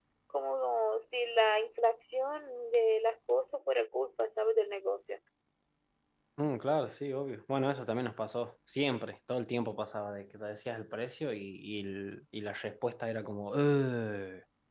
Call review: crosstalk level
none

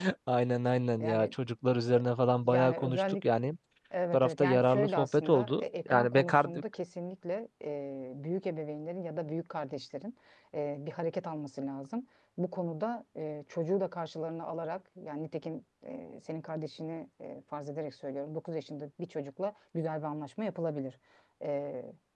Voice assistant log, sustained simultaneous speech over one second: present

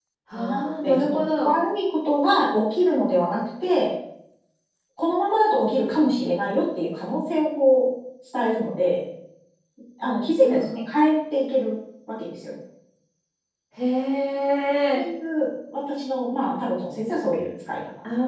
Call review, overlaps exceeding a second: present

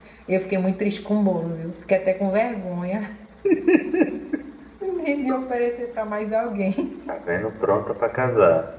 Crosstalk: none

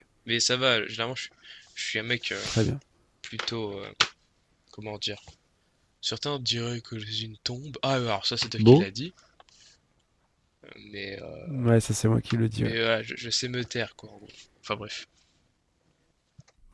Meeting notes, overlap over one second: none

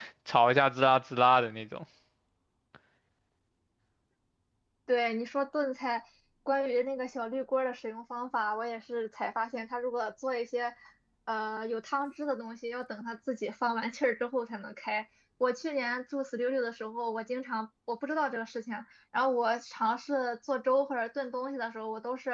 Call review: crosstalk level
none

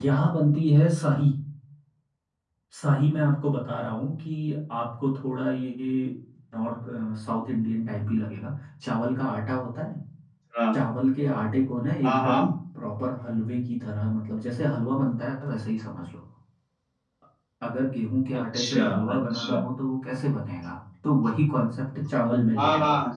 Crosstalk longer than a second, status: present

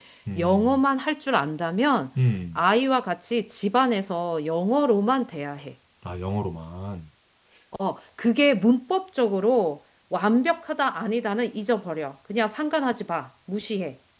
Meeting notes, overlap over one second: none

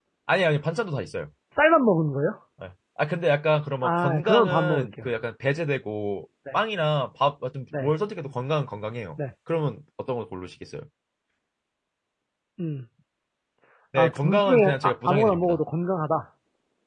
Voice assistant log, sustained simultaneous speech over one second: present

